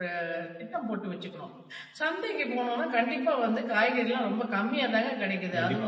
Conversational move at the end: taking over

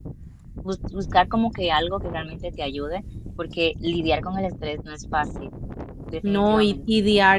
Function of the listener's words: taking over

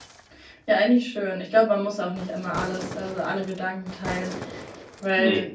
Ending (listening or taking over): listening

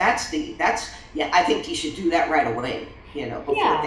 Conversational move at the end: taking over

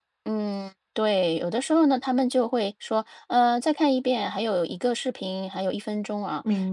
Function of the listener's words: listening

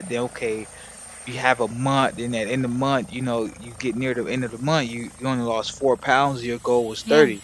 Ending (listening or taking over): listening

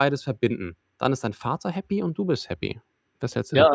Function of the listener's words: taking over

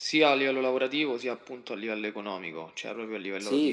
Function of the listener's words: taking over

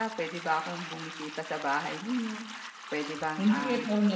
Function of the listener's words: taking over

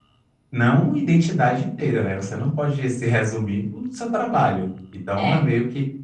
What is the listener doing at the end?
listening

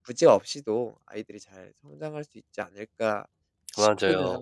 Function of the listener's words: taking over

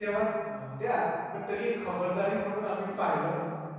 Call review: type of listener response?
listening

